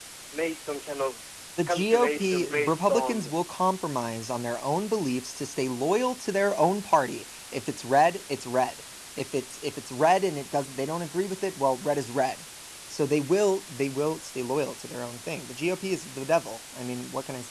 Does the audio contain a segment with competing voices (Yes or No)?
Yes